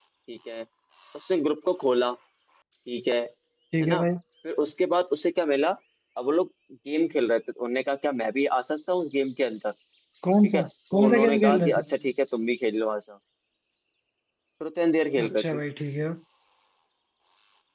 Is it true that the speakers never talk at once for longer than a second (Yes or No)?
No